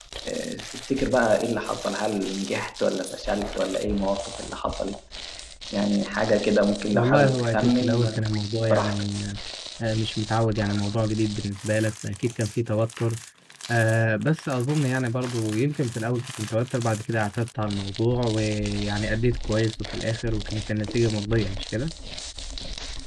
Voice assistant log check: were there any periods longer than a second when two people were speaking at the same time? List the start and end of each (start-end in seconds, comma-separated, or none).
6.9-8.3